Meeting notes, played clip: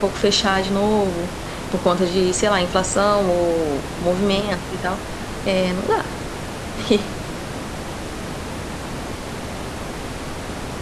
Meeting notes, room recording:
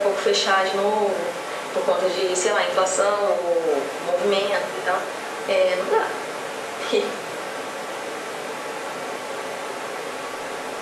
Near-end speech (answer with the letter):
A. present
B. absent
B